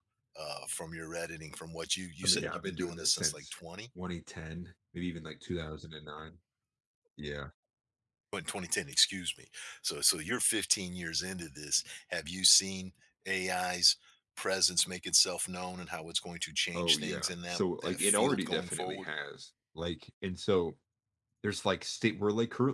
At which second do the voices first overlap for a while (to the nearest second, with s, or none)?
2 s